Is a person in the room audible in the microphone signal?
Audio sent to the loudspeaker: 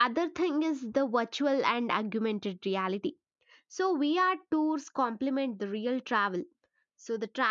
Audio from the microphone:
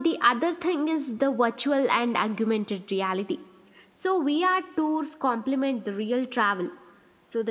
No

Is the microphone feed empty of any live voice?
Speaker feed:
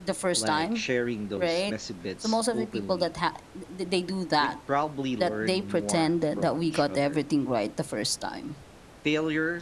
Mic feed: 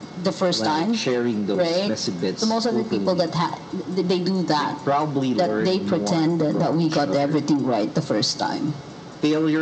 Yes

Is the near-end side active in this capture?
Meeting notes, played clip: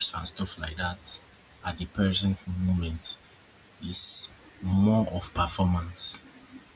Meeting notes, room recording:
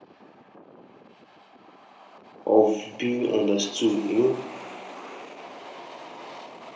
Yes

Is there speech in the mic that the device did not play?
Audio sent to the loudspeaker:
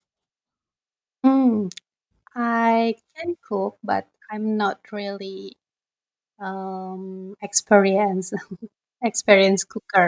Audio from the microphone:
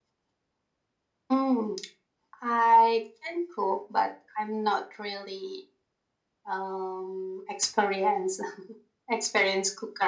No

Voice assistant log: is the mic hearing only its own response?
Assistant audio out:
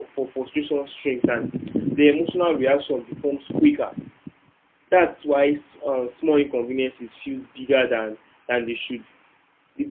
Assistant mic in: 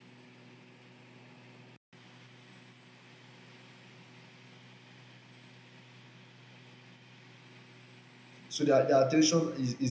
No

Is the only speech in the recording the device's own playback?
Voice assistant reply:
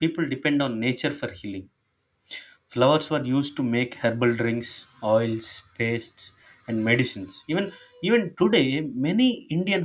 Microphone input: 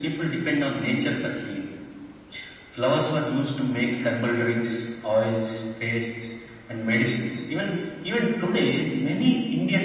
Yes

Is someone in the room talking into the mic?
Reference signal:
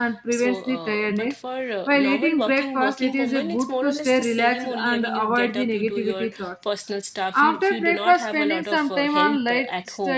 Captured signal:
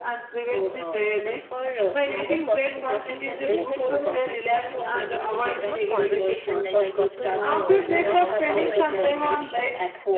Yes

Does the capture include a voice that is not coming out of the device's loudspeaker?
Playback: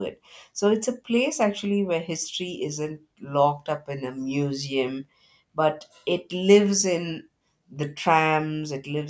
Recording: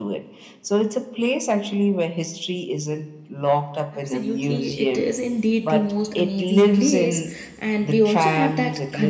Yes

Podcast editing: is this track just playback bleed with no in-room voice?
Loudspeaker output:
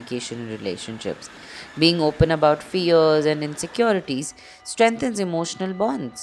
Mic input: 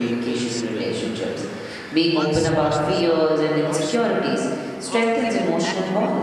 No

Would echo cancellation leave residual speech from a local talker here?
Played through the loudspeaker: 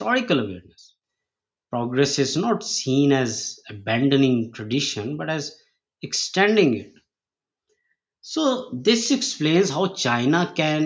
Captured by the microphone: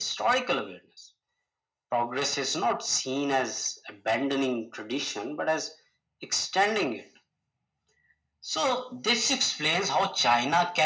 No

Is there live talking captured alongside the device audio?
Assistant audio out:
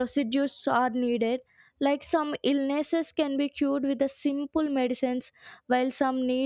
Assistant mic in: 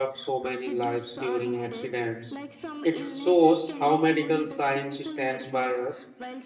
Yes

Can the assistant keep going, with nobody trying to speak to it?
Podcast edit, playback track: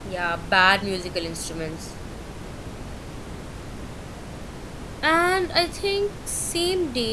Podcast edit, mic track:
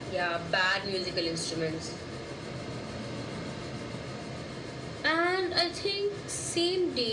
Yes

